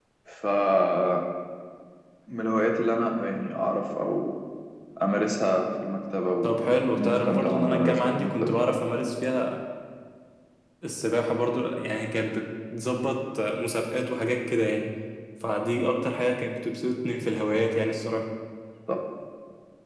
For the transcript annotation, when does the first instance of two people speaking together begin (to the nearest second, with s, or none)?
6 s